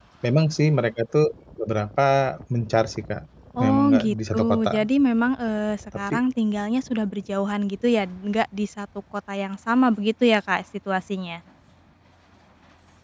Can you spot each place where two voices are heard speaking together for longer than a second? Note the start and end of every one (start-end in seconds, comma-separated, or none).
3.6-4.9